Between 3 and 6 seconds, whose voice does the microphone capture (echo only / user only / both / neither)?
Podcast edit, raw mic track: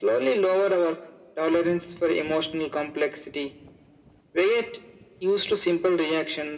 echo only